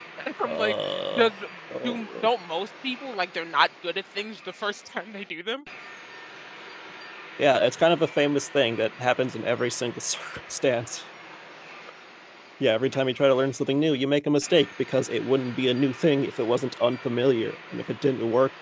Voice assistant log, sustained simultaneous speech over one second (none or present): none